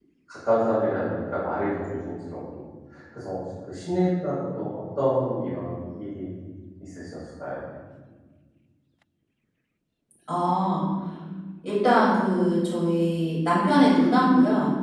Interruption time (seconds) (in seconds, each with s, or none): none